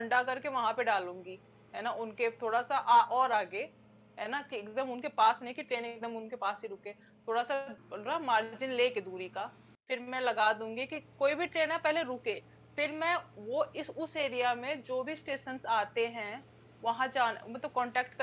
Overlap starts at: none

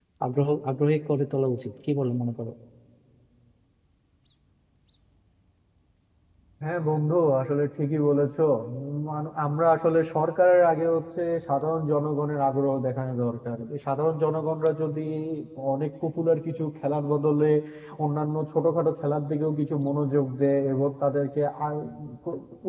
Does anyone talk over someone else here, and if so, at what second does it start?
none

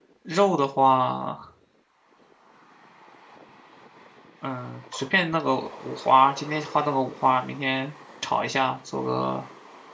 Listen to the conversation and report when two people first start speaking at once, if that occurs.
none

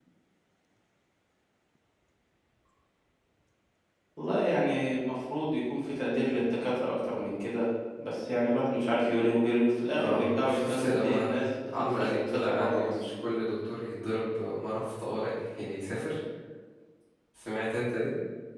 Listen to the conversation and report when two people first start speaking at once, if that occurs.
10 s

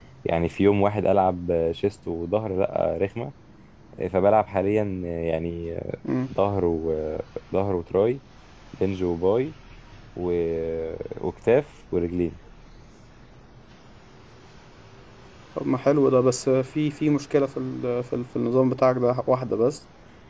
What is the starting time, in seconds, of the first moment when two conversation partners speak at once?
none

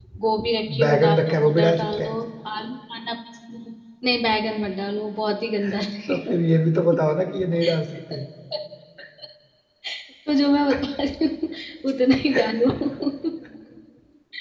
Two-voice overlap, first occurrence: 1 s

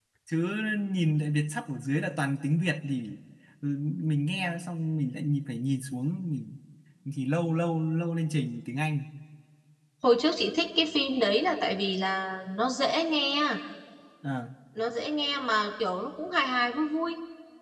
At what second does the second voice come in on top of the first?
none

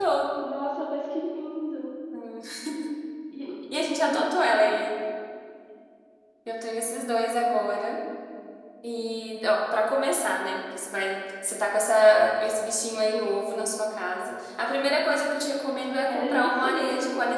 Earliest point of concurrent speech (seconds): 16 s

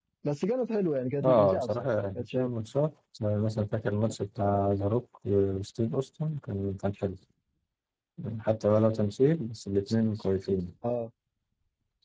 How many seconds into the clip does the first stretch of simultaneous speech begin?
1 s

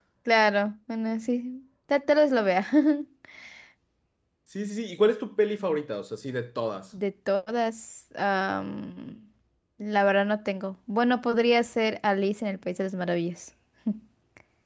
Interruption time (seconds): none

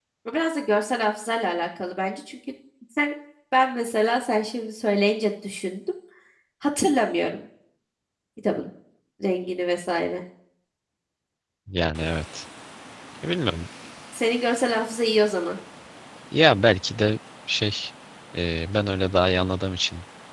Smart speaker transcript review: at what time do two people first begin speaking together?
none

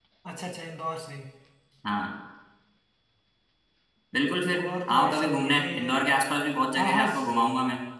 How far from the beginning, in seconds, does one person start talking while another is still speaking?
5 s

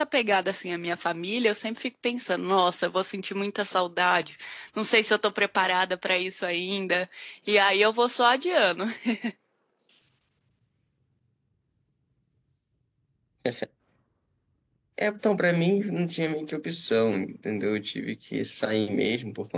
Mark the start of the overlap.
none

